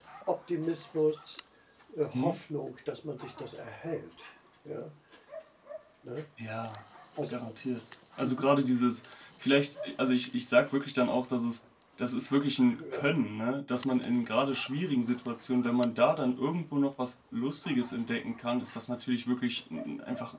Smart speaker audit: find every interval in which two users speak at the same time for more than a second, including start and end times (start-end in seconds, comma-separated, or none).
none